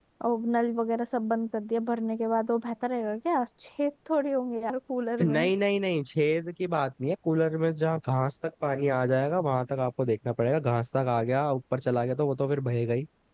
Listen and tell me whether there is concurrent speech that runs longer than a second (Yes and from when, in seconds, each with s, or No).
No